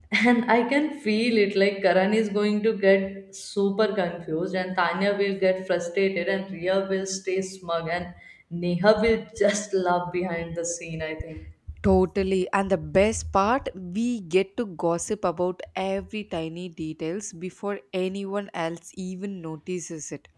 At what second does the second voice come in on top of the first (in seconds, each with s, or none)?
none